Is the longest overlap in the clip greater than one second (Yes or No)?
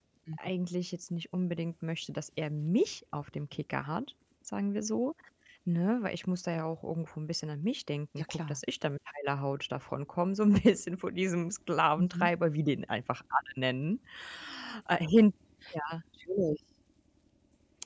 No